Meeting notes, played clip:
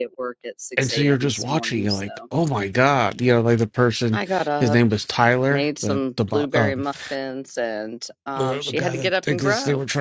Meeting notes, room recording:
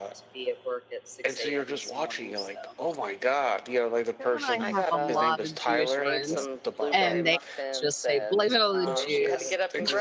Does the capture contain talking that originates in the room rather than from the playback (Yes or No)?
Yes